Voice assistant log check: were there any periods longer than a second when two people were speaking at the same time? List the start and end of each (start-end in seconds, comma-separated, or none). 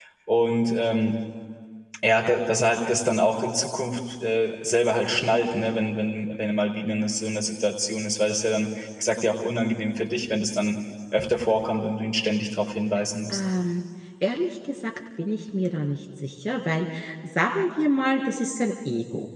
none